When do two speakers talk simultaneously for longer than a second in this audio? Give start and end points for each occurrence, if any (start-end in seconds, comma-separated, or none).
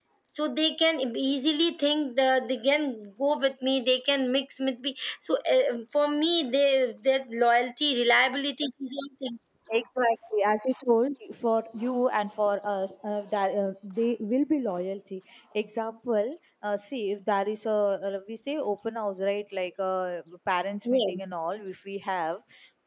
none